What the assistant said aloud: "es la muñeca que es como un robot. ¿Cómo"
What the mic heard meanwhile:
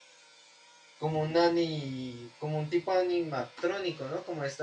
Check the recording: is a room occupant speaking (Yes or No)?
Yes